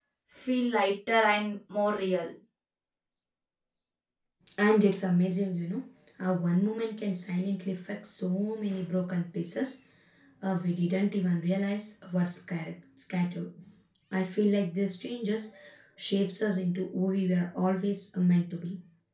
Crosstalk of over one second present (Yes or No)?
No